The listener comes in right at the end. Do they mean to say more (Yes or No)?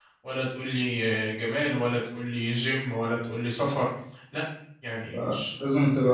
Yes